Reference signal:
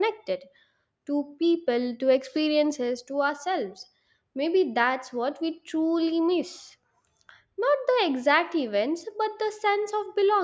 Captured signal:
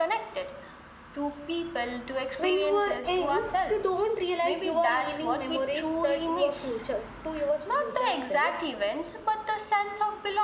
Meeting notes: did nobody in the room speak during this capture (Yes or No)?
No